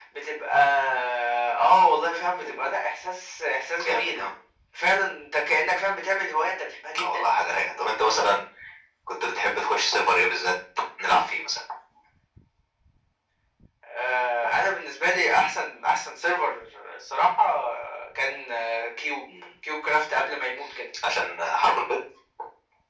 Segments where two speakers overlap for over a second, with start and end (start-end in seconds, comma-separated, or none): none